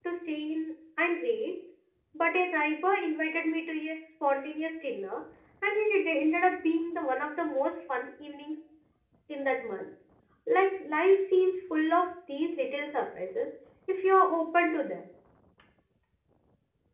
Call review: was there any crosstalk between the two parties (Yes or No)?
No